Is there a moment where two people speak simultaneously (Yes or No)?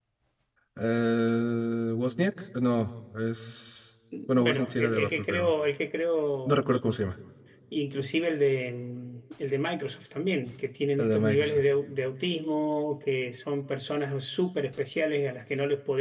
Yes